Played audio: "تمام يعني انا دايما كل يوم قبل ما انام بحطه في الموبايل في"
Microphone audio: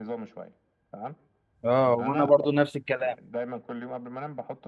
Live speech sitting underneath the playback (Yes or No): No